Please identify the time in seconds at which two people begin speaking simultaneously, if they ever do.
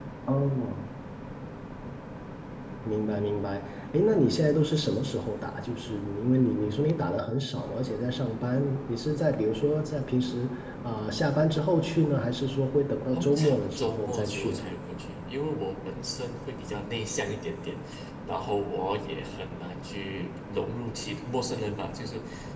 13.1 s

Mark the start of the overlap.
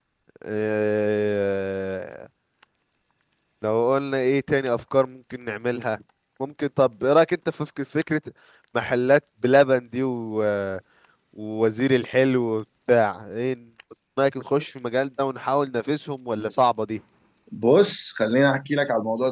none

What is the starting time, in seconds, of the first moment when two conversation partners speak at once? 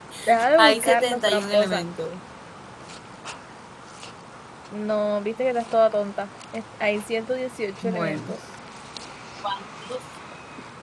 0.6 s

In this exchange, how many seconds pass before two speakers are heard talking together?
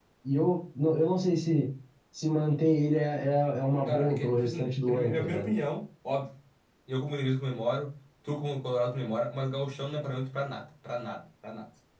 3.9 s

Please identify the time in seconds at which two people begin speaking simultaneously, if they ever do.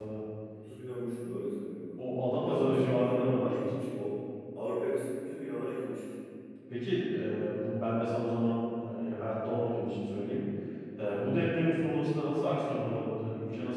2.5 s

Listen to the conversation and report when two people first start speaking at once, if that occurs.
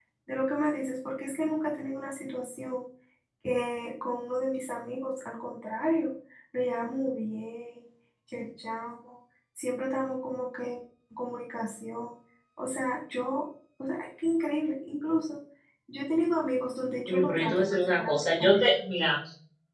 17.1 s

